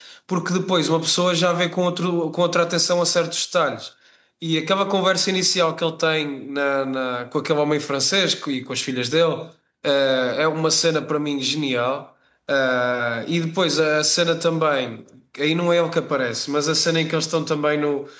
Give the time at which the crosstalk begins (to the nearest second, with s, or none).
none